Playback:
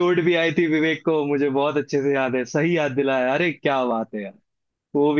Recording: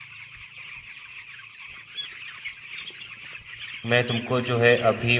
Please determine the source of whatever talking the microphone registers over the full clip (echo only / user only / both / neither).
user only